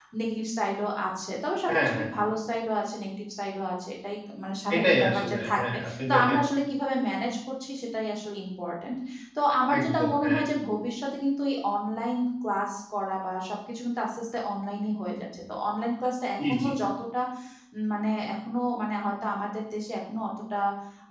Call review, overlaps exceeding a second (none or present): present